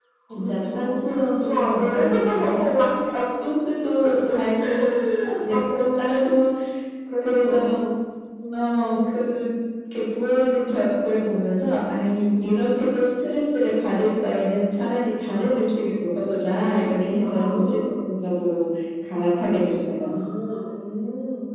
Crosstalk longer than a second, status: present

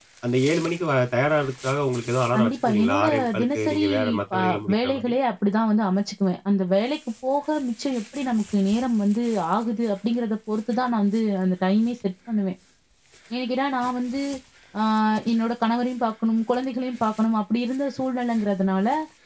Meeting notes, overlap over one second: present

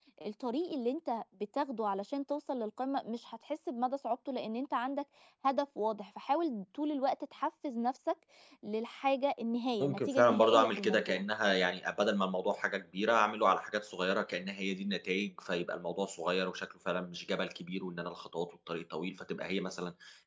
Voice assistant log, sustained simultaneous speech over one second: present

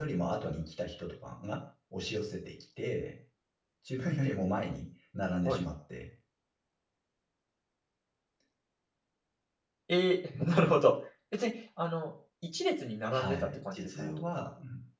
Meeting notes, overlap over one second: present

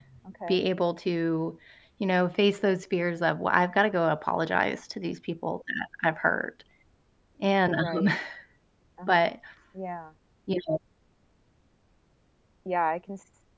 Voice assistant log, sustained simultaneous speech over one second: none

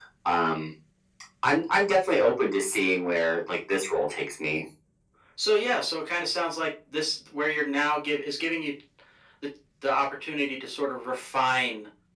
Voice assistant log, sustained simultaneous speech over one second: none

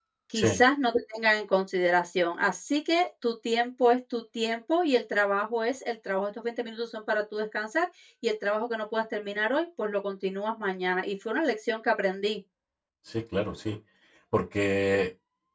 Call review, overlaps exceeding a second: none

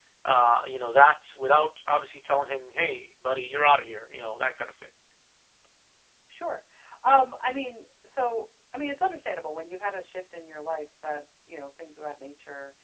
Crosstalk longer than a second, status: none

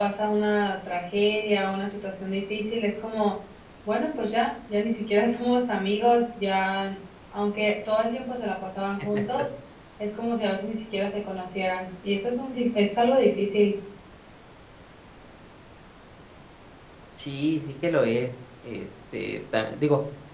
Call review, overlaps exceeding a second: none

